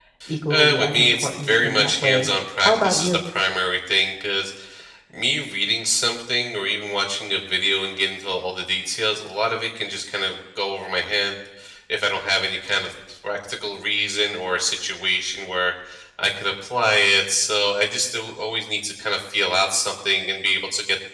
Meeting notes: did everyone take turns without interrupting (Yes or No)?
No